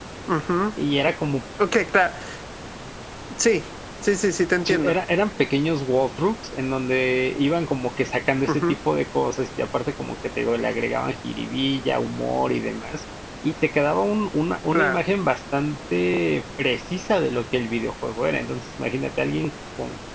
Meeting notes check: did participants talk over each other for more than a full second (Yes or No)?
No